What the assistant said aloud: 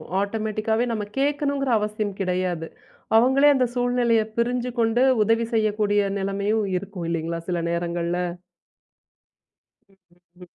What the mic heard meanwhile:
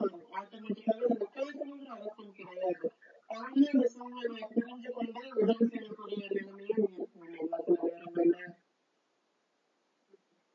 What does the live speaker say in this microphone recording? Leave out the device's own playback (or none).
none